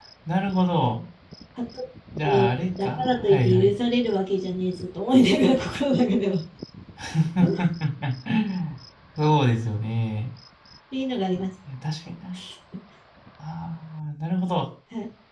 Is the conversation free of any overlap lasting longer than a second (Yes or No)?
No